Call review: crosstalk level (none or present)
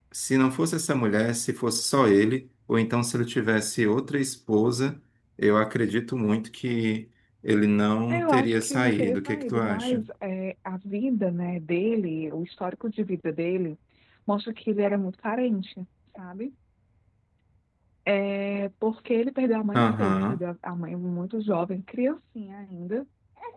present